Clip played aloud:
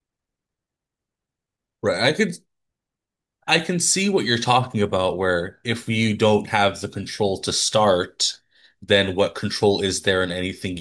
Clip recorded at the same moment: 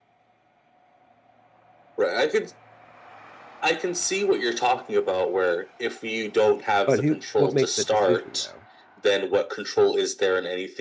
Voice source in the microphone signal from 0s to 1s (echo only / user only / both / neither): neither